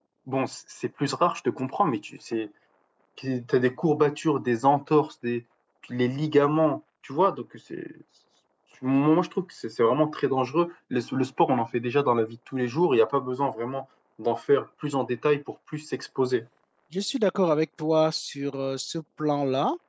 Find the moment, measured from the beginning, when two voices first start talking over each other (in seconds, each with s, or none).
none